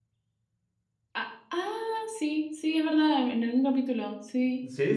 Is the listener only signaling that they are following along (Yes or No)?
No